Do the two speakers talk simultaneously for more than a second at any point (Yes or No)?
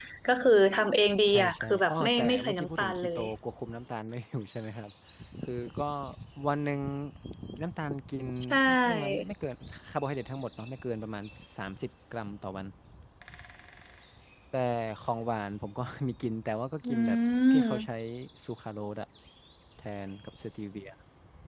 Yes